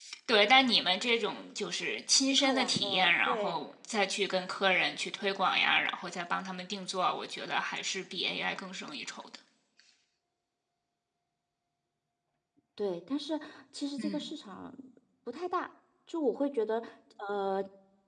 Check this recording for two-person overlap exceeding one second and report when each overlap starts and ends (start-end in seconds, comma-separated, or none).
2.3-3.6